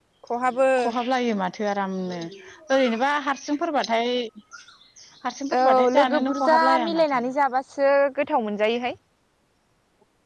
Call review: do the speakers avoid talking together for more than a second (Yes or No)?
No